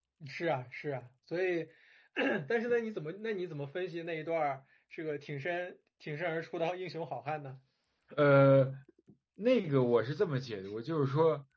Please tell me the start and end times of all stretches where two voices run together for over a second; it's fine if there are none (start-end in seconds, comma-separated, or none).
none